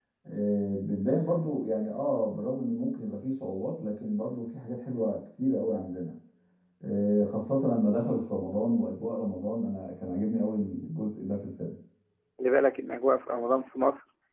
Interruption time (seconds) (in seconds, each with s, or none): none